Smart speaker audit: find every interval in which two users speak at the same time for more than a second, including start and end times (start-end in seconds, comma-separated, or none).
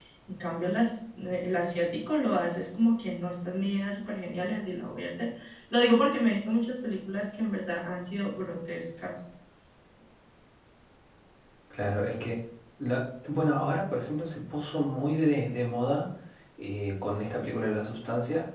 none